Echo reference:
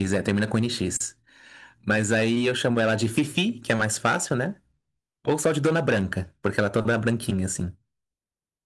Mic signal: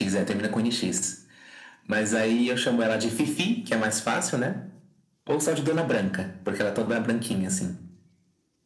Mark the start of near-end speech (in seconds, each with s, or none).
none